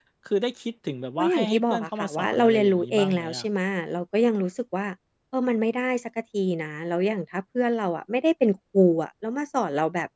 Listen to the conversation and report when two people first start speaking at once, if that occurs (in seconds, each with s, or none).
1.2 s